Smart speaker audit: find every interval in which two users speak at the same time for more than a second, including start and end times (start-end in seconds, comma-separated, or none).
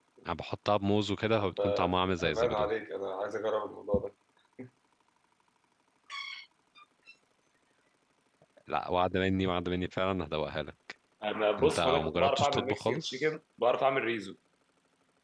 1.4-2.7, 11.6-13.2